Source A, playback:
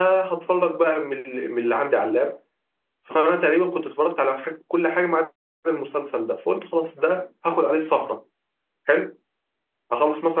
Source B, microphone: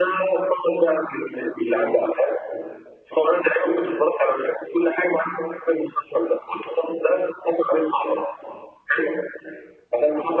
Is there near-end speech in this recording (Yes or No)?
No